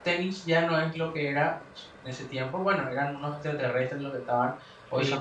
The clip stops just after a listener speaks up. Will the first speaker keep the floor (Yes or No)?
Yes